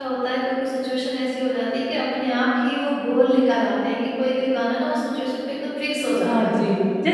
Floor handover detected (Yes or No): Yes